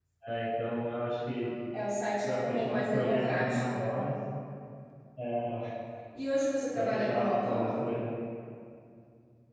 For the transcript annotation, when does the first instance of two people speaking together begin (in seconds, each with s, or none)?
2.2 s